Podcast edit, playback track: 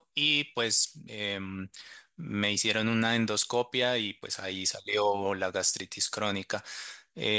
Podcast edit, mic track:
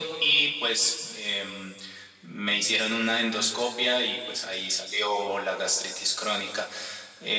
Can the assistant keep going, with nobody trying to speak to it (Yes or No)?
Yes